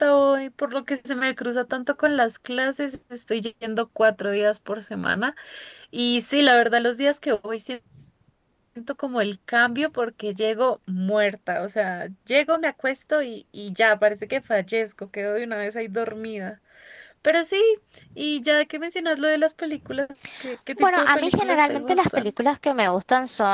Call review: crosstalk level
present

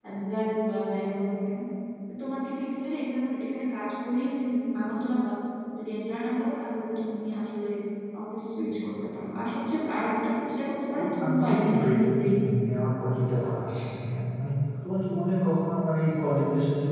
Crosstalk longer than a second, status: present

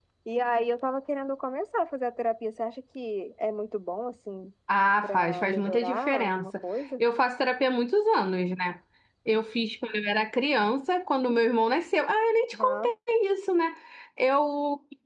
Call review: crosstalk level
present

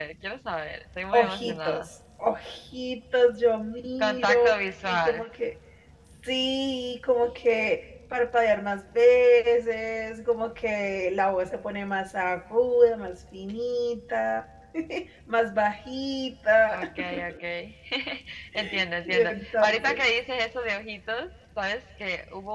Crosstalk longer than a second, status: present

